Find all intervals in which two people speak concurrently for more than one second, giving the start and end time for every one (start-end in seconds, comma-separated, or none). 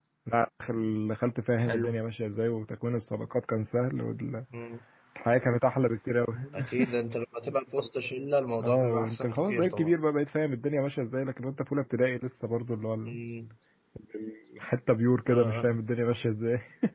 8.6-9.9